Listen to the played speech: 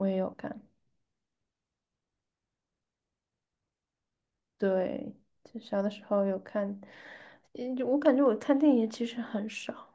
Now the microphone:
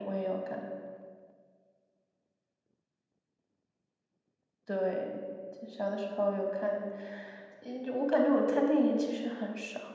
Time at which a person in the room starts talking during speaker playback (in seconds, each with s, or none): none